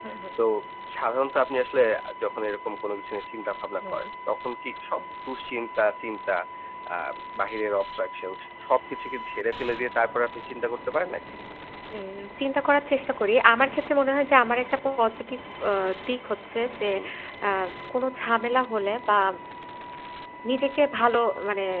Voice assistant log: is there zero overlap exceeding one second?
Yes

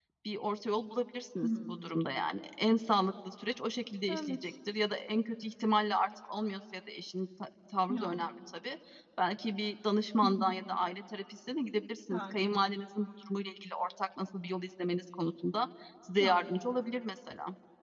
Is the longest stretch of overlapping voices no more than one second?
Yes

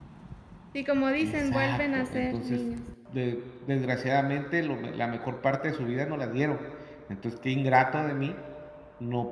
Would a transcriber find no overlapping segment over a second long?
No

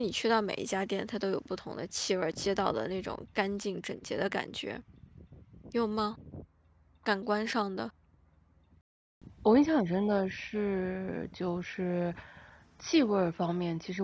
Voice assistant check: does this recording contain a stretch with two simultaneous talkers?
No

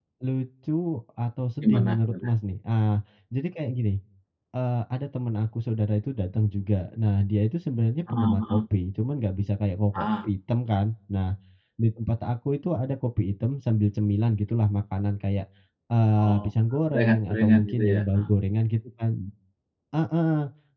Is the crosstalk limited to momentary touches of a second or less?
No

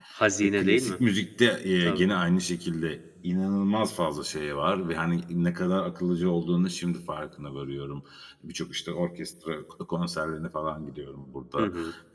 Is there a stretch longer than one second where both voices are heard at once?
No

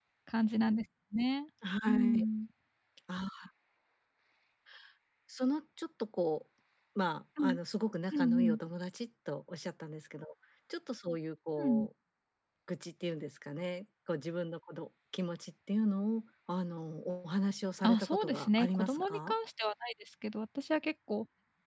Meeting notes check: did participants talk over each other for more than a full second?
Yes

